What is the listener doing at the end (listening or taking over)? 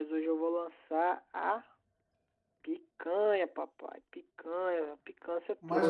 taking over